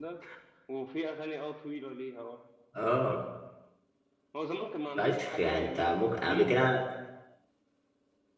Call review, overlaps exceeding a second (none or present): present